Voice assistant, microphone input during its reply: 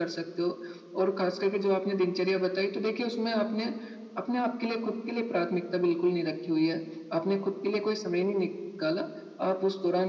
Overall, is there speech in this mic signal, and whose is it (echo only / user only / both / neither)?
echo only